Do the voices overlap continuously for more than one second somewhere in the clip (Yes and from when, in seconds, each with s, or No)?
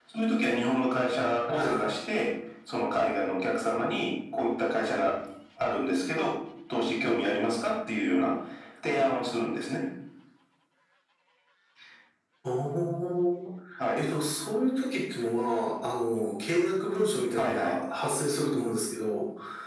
No